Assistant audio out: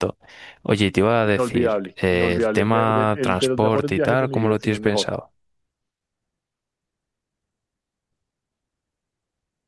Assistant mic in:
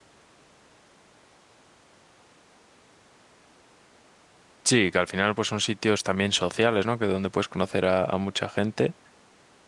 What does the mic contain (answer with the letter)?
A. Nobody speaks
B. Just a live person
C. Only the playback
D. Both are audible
B